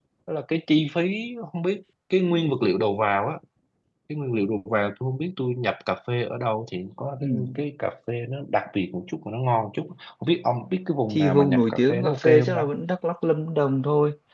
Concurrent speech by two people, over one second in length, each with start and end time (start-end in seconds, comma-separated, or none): 11.1-12.6